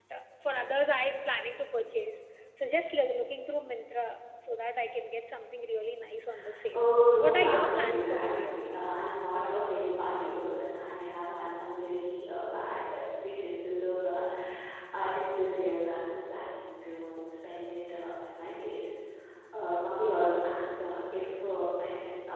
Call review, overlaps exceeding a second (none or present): present